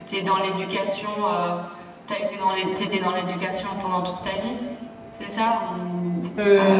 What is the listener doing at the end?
taking over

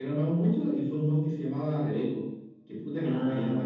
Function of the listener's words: taking over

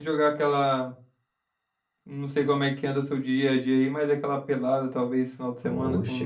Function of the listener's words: taking over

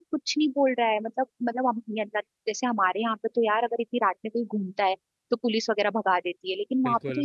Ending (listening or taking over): listening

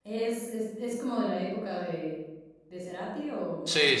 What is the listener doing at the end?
taking over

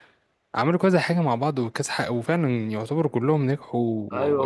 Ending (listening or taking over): taking over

